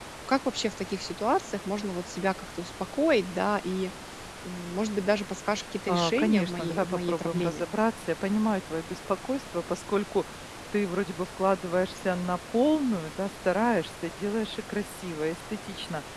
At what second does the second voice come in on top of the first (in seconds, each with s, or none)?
5.9 s